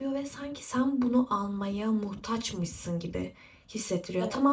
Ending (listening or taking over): listening